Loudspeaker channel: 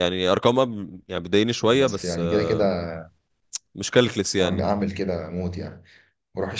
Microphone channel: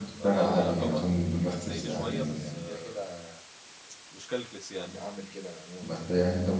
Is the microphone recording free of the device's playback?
No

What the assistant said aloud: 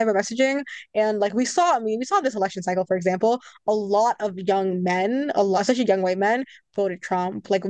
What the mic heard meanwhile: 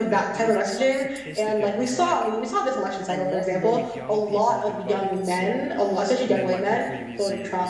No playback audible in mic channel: No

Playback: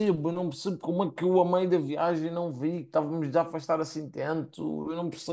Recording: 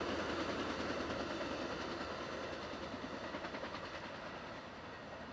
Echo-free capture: Yes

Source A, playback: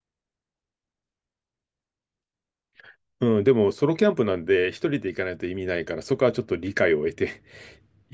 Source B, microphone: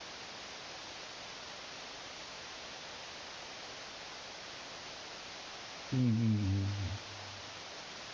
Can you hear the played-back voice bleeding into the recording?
No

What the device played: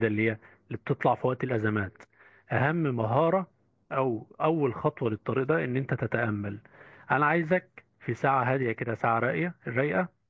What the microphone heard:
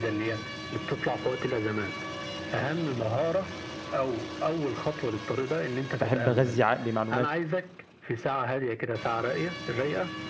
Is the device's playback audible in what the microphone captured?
Yes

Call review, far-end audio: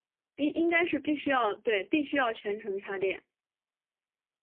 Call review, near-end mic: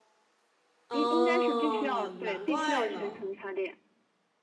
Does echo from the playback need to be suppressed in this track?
Yes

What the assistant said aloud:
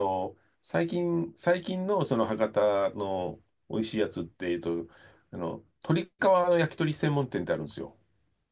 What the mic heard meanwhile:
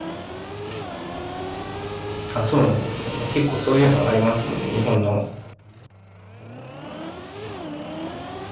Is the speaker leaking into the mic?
No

